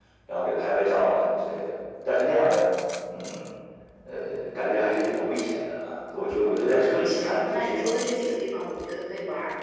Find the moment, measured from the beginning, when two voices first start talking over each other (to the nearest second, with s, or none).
7 s